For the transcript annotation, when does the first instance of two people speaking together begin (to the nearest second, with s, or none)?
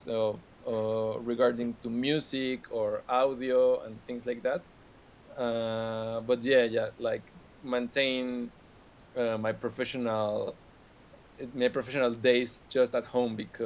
none